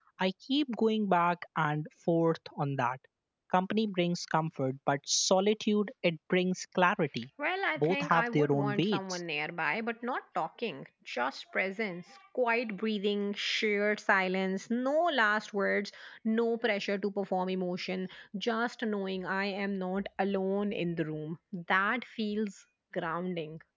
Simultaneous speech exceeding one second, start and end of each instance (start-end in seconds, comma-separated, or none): 7.8-9.2